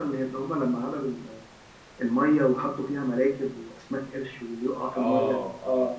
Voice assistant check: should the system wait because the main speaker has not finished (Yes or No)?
No